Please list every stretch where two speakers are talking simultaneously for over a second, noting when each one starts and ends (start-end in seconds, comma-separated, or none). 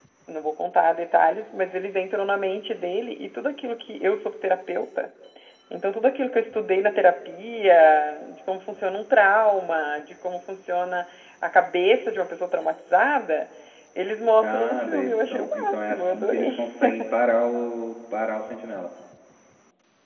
14.4-16.6